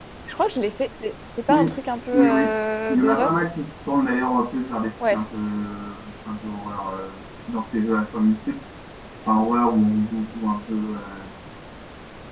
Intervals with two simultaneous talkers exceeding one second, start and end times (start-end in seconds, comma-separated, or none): none